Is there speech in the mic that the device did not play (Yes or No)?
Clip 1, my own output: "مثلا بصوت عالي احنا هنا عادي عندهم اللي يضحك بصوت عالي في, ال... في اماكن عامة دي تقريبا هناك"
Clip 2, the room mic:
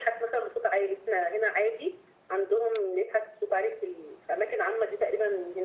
No